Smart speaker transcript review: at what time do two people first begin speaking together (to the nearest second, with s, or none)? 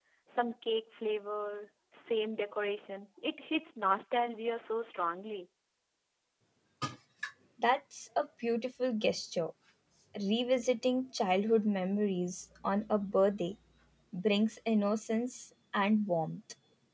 none